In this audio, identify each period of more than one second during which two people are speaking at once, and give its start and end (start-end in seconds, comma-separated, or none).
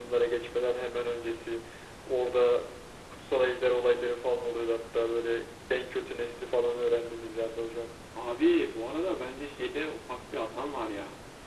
none